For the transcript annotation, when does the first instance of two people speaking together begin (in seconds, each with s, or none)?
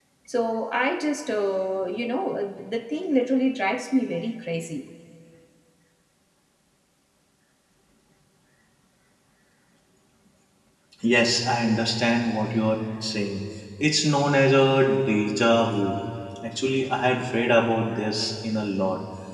none